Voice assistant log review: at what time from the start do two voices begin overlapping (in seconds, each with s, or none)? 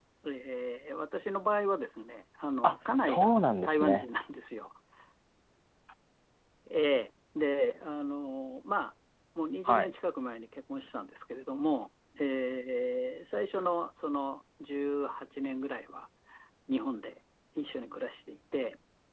2.6 s